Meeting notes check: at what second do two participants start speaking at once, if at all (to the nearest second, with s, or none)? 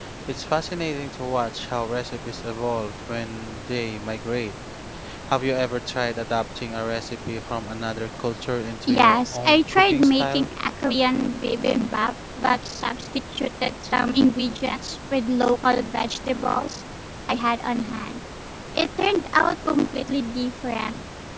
9 s